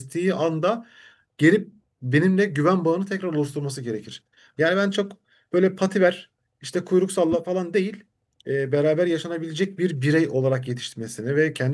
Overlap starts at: none

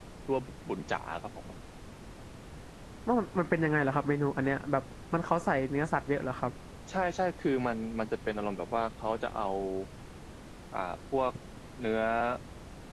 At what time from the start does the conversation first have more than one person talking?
none

